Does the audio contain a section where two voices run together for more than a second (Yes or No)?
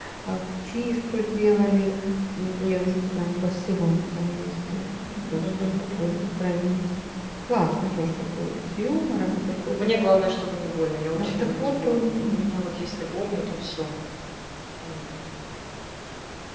Yes